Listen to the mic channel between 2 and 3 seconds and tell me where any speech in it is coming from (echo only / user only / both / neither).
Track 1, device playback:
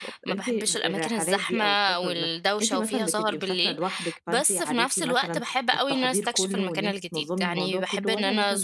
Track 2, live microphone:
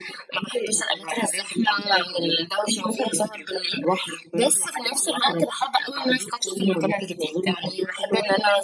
echo only